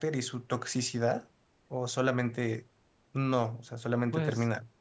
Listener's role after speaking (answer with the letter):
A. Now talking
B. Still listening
A